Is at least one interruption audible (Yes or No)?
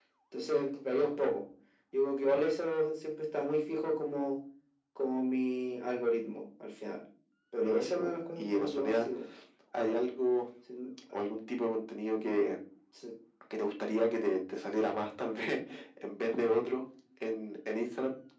Yes